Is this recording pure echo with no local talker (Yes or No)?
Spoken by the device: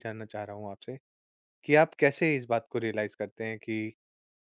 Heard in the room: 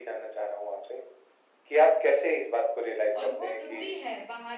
No